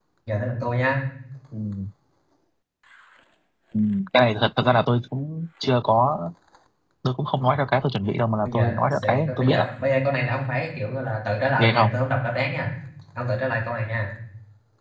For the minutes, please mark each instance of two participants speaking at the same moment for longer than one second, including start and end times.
8.4-9.7

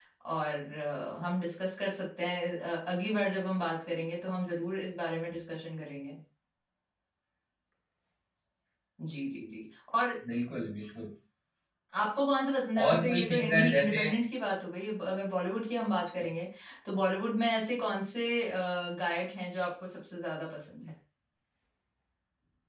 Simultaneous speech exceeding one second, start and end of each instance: 12.8-14.1

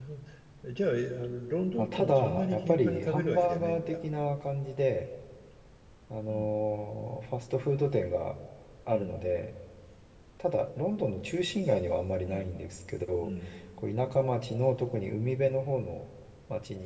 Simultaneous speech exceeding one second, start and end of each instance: 1.8-4.0

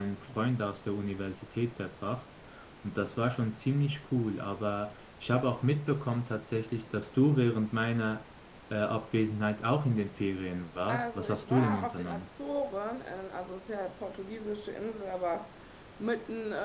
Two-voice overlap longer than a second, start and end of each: 10.9-12.3

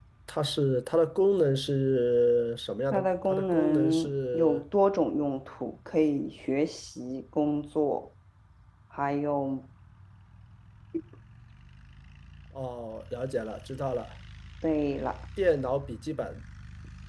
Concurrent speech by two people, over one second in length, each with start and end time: 2.9-4.6

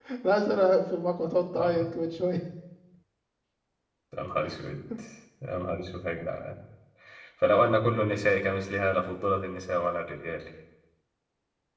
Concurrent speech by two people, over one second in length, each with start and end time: none

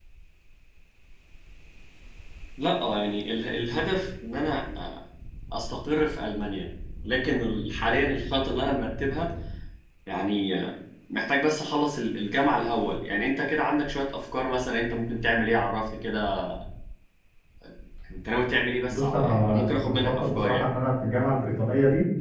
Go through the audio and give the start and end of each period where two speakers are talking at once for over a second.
18.9-20.7

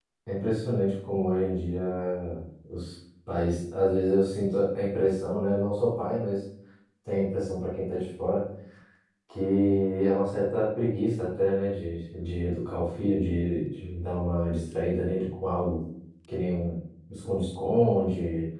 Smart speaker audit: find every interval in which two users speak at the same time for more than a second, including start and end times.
none

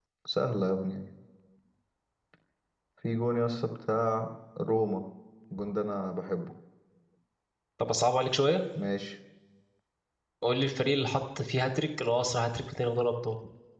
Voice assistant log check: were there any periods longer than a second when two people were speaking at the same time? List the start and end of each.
none

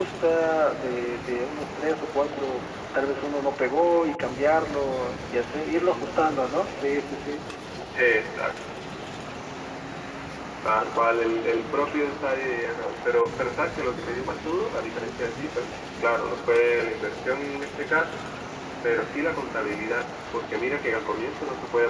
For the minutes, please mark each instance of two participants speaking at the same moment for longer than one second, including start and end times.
none

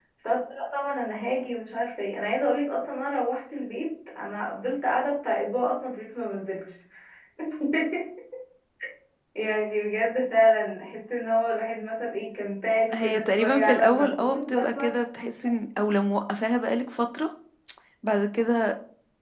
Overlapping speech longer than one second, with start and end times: 12.9-15.0

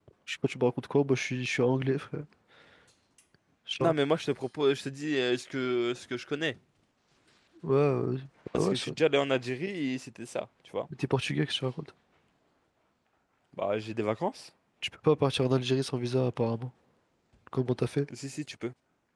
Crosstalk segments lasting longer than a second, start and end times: none

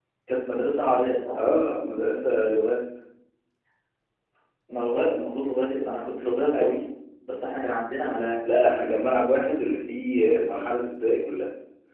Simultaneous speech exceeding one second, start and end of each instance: none

